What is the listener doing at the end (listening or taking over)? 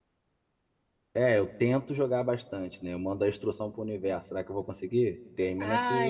taking over